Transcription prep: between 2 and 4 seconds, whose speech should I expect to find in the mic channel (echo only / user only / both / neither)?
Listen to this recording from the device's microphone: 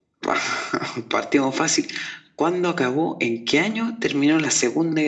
echo only